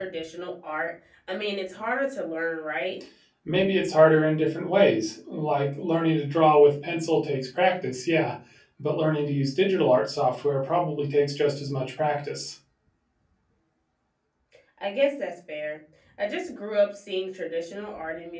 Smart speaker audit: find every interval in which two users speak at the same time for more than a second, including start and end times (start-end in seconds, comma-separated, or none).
none